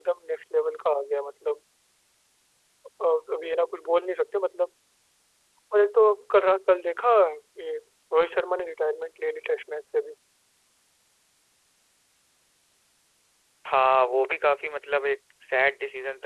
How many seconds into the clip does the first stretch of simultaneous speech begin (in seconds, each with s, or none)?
none